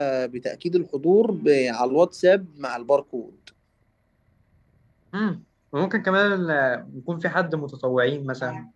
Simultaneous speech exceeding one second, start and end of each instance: none

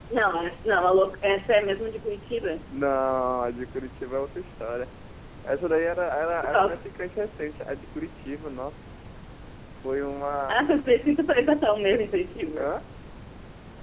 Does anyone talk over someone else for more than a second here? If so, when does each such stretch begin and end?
none

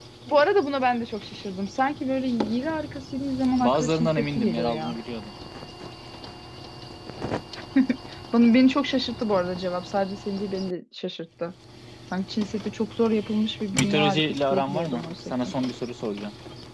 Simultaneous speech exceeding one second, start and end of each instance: 3.6-5.0, 13.7-15.3

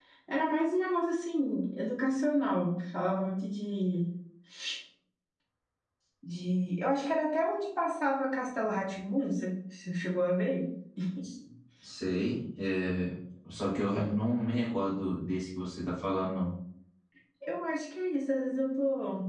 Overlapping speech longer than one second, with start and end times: none

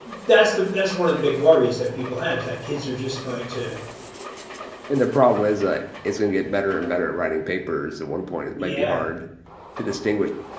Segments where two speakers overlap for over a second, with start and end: none

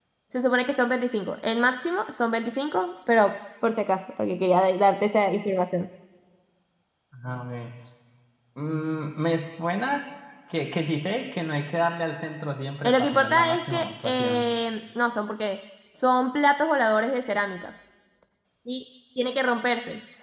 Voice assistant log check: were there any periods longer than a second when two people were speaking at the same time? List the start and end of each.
12.8-14.4

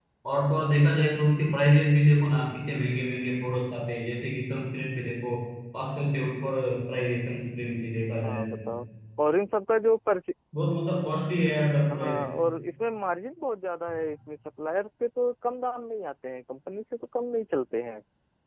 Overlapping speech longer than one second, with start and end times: none

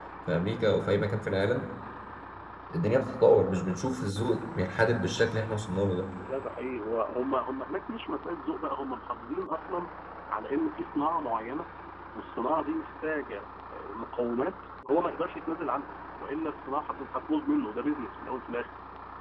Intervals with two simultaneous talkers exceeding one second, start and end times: none

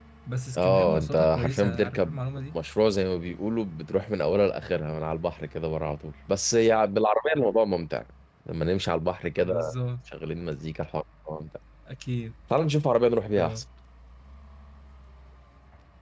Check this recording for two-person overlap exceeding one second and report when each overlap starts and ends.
0.6-2.2

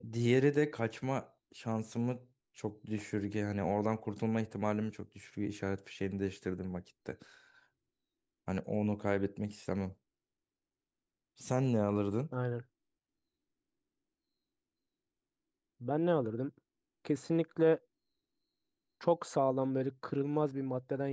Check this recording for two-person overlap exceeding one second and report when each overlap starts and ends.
none

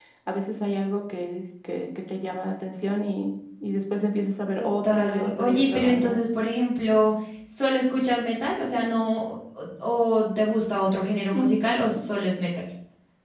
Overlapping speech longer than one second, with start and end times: 4.6-6.2

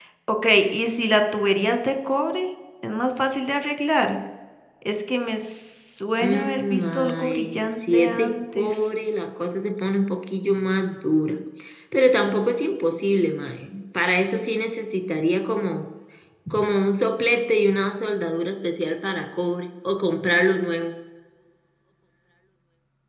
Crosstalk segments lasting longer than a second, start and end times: 6.2-8.9

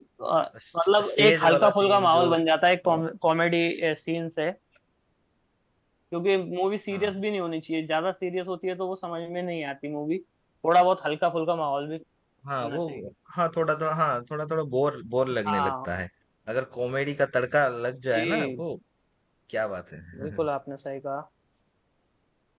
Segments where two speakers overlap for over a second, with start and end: 0.8-2.3

